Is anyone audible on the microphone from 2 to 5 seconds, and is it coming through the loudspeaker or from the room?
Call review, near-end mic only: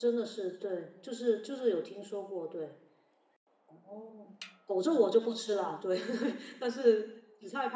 user only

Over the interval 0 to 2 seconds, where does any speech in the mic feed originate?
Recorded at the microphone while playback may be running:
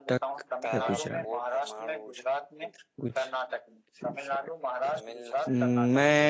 both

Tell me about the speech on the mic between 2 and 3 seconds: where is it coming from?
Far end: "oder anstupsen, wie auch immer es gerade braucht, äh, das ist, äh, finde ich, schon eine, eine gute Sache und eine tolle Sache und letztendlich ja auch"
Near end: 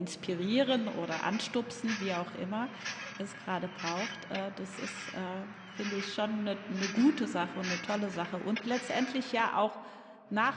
echo only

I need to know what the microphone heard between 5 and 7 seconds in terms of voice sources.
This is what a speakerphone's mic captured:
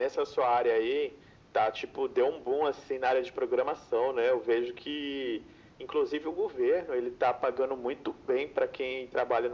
echo only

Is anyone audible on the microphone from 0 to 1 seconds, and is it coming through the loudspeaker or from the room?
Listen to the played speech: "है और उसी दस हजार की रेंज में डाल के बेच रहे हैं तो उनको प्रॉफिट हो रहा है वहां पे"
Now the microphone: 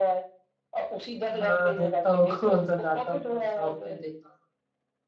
echo only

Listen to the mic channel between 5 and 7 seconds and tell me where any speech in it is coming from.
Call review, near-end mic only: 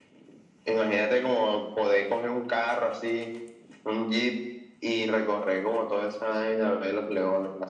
echo only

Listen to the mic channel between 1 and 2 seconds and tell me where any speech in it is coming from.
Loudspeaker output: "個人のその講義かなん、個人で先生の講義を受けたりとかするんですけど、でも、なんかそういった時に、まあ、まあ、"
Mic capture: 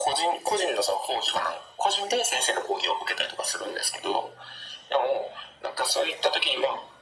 echo only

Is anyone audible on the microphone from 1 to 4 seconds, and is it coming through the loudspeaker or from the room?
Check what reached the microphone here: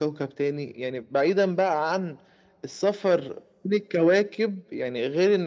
echo only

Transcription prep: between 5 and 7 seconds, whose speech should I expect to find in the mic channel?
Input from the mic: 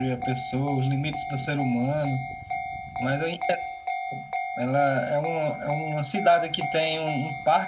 echo only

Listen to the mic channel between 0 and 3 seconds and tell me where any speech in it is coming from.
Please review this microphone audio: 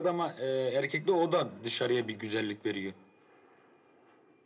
echo only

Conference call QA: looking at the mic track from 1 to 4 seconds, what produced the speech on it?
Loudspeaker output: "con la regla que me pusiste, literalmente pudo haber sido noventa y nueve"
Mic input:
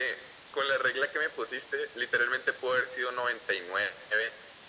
echo only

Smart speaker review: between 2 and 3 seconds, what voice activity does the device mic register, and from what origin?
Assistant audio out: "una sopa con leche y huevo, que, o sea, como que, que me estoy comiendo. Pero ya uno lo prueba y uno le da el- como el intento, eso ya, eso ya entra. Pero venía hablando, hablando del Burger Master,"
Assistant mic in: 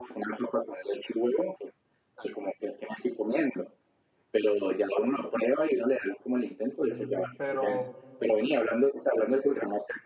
echo only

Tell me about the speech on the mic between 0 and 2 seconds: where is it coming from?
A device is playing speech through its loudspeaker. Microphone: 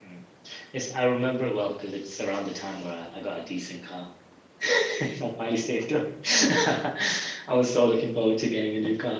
user only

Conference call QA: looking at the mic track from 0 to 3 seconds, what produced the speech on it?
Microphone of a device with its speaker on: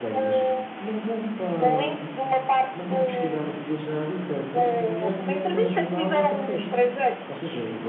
both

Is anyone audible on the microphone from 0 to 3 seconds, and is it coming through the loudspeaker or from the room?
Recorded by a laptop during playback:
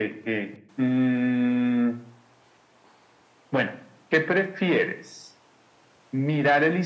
echo only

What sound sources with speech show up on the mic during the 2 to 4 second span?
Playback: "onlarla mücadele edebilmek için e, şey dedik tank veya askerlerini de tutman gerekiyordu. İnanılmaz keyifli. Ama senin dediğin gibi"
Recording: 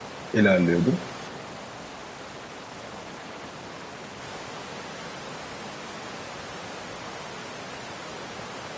neither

